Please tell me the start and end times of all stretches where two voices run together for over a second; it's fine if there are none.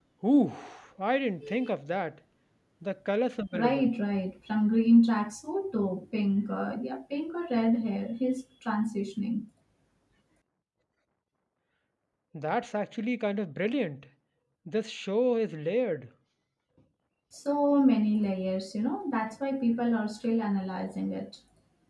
none

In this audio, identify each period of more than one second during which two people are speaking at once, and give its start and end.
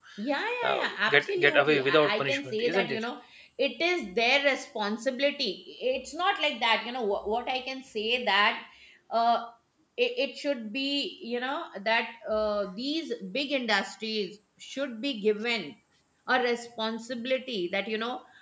0.6-3.0

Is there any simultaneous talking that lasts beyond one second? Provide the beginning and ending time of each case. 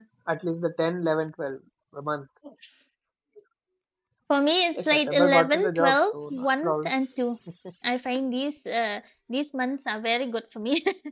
4.7-6.9

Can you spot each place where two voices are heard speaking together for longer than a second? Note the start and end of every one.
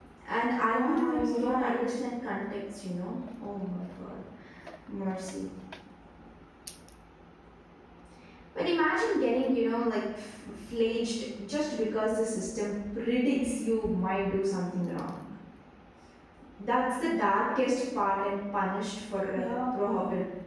0.6-1.9

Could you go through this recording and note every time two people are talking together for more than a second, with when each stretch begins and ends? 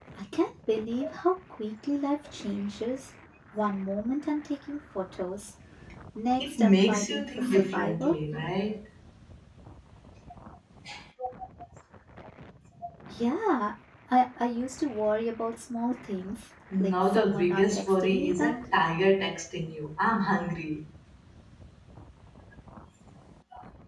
6.4-8.1, 16.8-18.7

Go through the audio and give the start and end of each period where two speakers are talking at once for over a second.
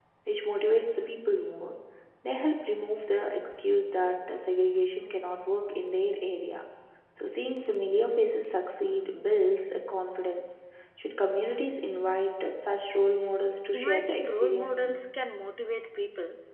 13.7-15.1

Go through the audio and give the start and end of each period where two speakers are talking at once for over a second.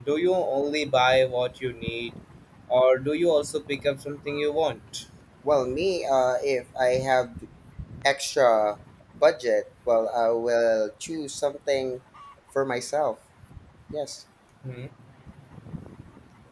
none

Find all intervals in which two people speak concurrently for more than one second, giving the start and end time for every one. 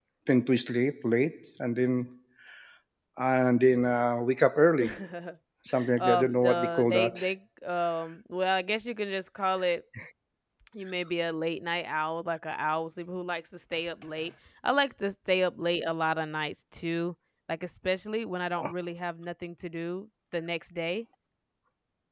6.0-7.2

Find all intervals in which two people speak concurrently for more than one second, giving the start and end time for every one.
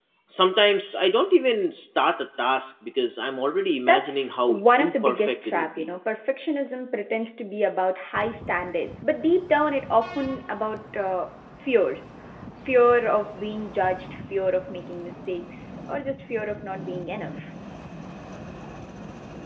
3.9-5.9

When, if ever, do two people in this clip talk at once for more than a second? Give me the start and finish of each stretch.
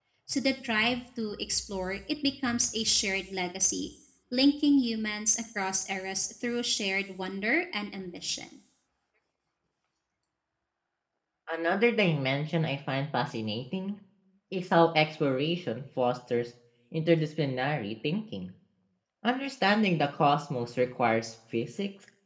none

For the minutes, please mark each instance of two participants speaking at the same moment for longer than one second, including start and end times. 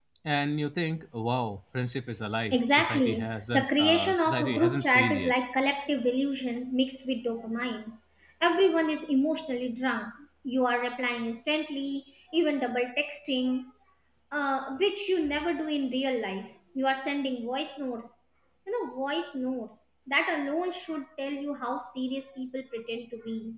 2.5-5.3

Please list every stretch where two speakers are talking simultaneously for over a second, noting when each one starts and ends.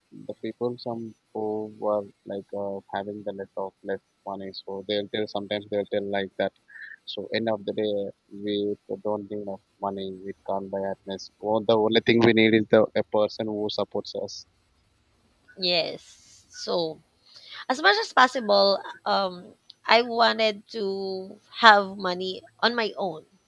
none

